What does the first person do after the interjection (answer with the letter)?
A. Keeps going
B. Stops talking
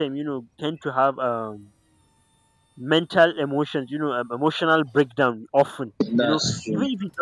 A